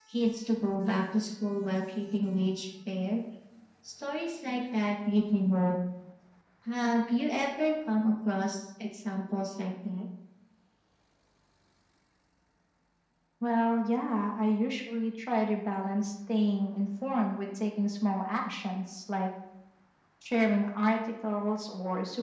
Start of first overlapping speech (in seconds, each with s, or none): none